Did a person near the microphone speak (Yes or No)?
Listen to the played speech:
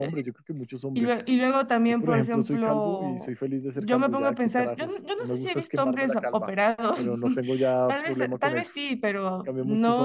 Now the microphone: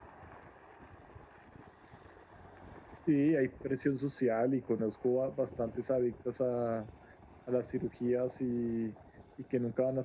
Yes